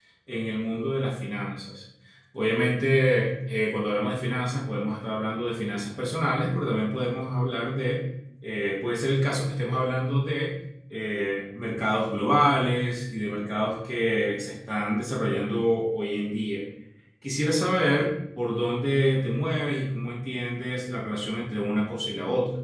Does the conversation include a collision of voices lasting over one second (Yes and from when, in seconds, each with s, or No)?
No